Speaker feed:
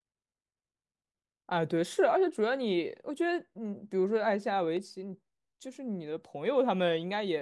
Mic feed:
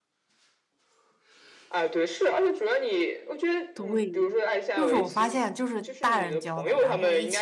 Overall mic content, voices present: both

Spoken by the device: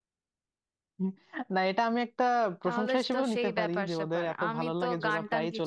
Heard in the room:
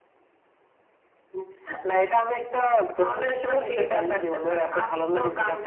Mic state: echo only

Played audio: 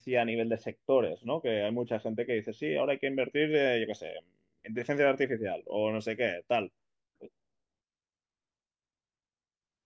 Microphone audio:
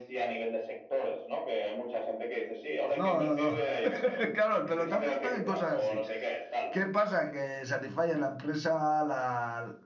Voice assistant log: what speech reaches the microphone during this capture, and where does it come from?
both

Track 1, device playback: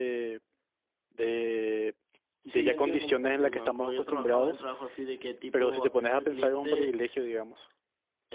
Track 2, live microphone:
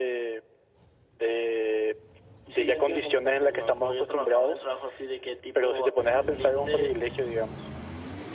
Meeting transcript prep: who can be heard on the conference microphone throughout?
echo only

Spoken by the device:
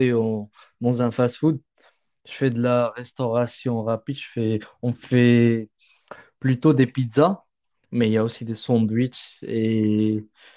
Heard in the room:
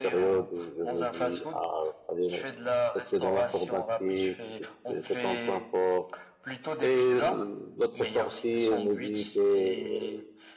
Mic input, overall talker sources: both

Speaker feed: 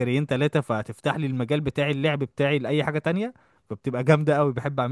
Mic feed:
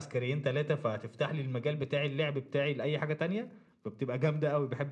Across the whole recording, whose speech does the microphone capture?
echo only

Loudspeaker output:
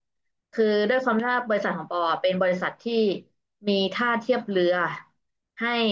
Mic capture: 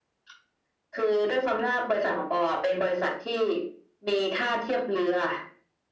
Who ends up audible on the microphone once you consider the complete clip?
echo only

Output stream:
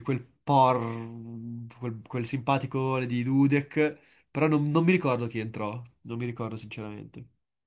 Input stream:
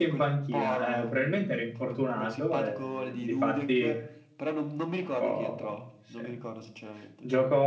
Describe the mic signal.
both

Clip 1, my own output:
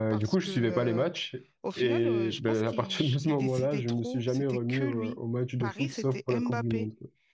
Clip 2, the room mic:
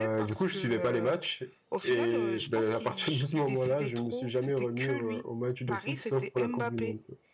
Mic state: echo only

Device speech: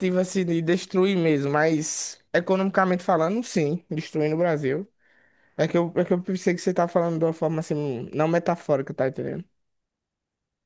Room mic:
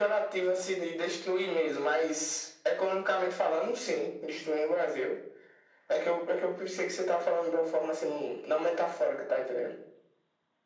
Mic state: echo only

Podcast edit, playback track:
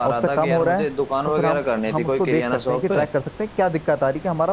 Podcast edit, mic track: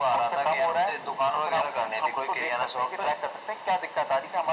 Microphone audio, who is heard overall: echo only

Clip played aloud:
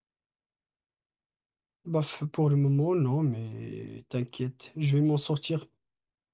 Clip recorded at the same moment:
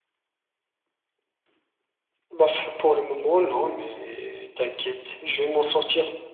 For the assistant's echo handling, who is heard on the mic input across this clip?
echo only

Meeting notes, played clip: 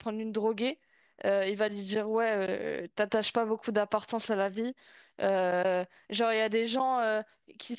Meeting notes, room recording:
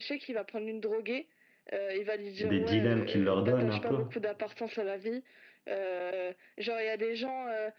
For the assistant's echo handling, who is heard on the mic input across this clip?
both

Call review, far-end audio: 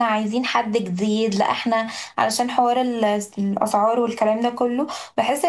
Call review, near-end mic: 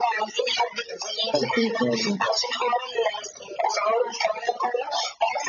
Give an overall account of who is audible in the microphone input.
both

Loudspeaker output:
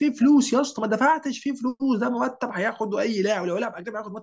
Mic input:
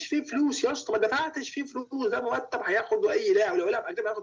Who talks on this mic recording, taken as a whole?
echo only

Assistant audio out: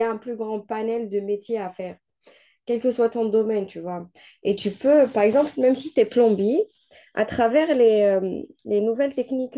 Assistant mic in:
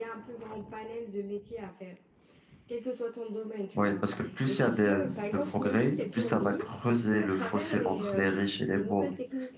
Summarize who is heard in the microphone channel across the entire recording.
both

